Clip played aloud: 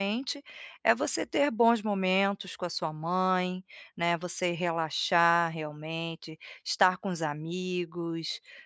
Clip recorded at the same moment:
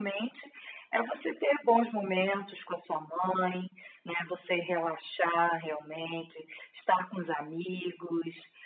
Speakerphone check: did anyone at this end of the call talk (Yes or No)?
No